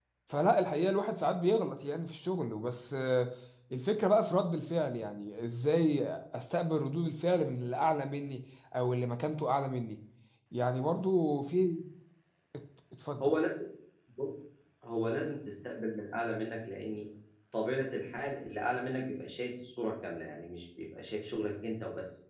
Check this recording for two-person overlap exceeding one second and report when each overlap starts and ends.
none

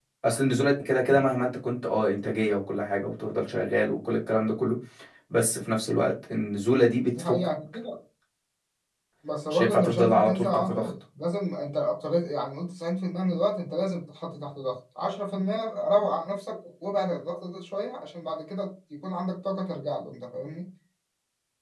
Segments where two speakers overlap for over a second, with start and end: 9.5-10.9

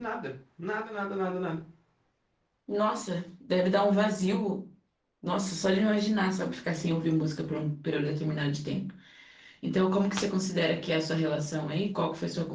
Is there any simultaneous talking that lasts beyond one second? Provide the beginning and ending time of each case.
none

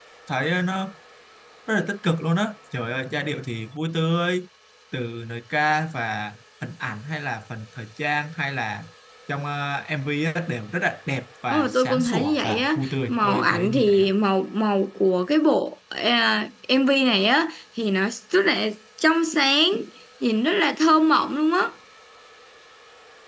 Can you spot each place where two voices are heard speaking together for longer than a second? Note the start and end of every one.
11.5-14.1

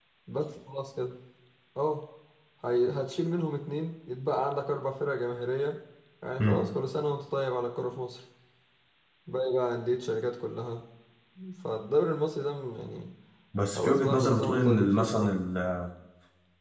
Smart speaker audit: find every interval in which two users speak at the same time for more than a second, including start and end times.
13.8-15.3

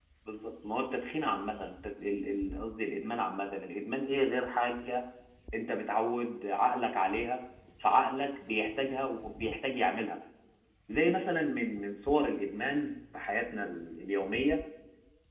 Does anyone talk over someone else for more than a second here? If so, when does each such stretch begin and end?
none

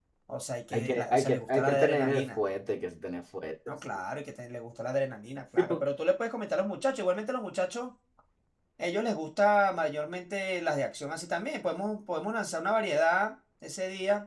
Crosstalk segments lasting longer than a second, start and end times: 0.7-2.4

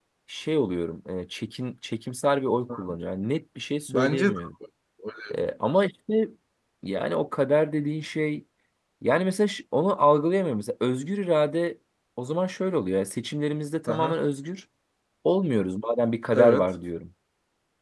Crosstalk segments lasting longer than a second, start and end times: none

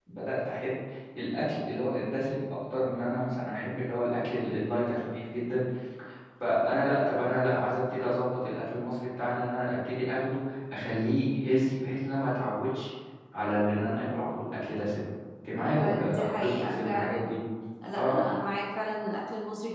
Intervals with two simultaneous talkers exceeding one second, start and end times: 15.6-17.3

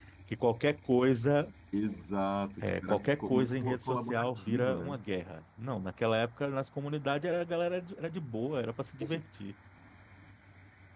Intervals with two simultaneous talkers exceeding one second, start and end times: 2.6-5.0

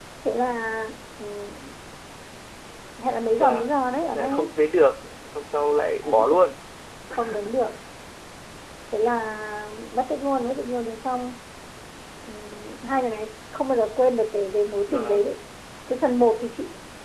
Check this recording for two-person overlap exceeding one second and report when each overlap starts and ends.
none

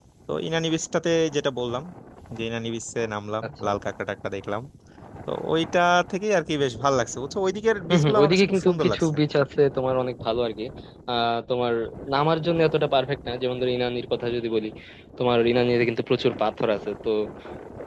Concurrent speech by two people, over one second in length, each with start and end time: 7.9-9.2

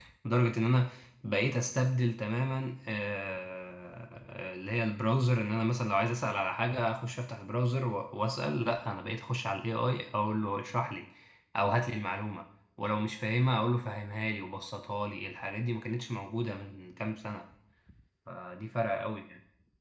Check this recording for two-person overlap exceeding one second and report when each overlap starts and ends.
none

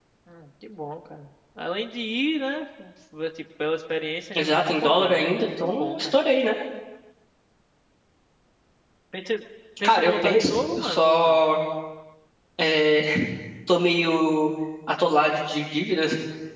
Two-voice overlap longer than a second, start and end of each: 4.3-6.2, 9.8-11.4

